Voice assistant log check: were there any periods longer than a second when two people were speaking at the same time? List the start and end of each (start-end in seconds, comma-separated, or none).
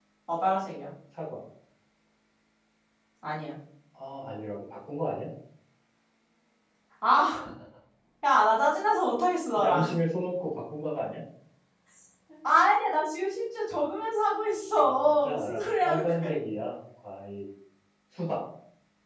14.8-16.3